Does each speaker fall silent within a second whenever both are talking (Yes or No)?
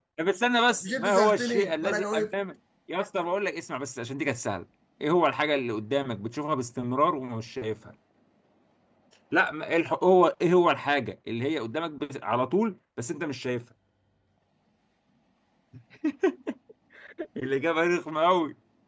No